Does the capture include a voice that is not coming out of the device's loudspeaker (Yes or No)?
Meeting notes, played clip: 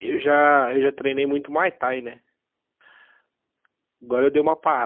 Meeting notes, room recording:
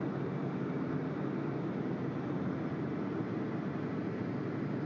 No